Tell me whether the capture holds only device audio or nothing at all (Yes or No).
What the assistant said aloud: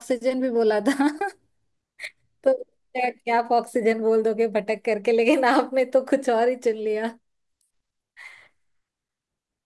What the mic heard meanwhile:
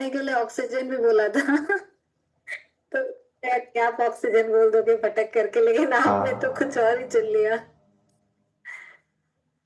No